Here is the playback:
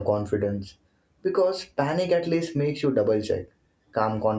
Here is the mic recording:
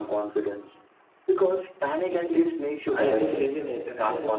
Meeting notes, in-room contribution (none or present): present